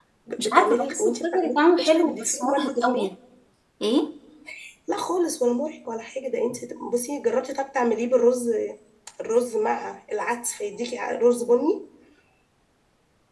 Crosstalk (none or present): present